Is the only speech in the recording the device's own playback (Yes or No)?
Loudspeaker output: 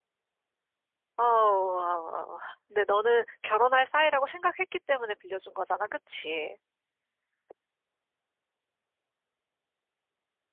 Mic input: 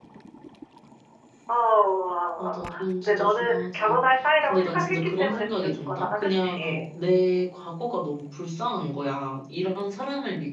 No